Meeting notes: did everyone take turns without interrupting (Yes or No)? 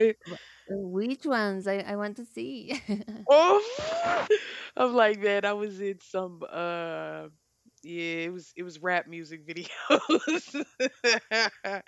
Yes